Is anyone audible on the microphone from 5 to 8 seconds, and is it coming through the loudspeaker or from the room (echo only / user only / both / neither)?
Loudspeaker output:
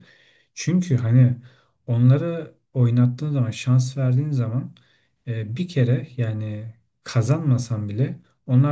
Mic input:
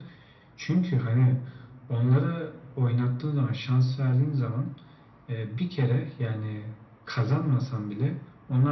echo only